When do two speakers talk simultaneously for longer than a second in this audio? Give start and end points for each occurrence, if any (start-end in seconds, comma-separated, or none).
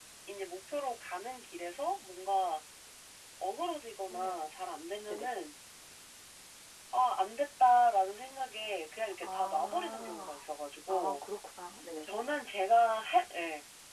9.2-10.4